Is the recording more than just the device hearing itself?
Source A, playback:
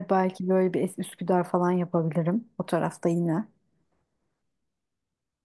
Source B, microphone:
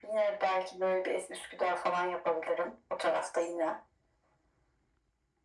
No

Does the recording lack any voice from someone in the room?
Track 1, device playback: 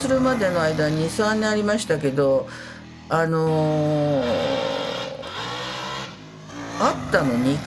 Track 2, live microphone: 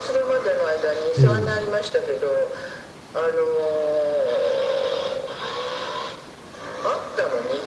No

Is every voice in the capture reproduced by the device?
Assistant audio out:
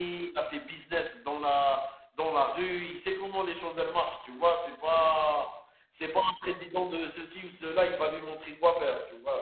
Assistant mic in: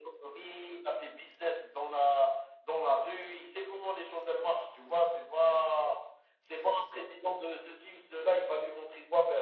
Yes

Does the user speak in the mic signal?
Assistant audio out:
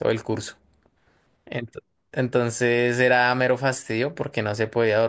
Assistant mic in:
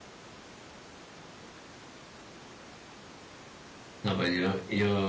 Yes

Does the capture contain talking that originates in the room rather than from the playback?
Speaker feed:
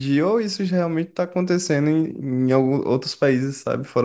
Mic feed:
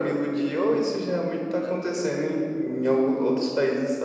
Yes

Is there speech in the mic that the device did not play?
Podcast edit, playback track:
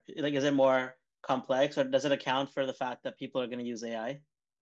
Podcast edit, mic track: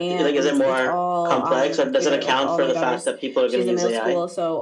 Yes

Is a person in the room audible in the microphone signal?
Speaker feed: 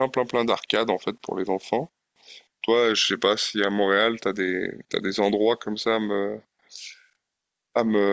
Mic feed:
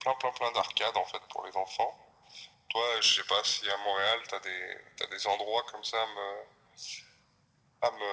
No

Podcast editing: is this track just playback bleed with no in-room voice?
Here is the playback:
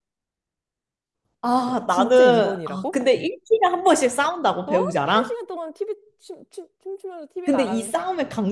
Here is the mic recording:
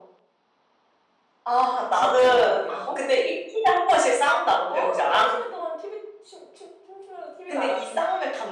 Yes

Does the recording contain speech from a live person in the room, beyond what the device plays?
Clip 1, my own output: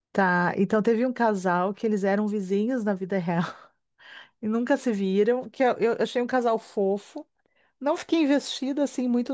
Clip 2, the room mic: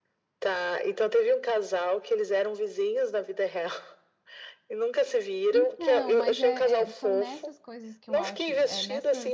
Yes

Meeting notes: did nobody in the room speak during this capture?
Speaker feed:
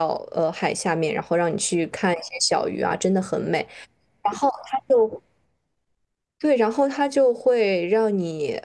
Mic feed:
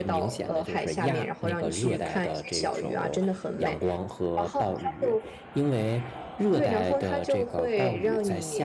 No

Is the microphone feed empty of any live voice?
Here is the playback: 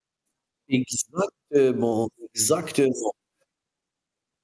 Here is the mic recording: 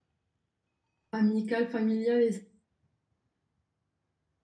No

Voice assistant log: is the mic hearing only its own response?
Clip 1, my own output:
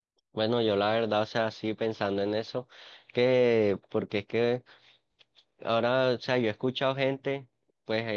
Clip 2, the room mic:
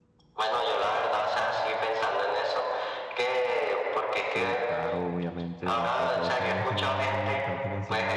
No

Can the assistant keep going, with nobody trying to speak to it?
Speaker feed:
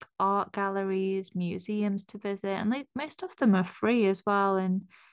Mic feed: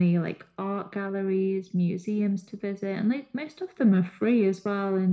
Yes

